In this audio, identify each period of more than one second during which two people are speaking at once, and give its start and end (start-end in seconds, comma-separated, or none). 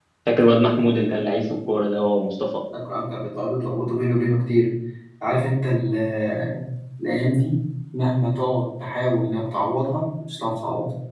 none